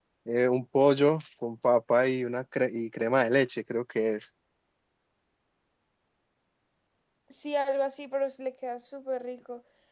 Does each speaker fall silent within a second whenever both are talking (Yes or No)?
Yes